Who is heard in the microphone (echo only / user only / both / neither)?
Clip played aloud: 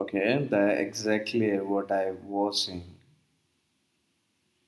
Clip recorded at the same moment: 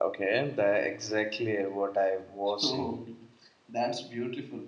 both